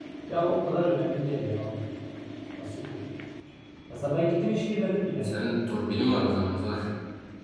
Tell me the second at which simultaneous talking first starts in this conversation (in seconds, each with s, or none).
none